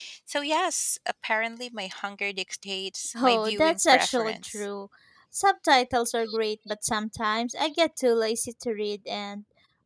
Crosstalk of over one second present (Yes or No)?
Yes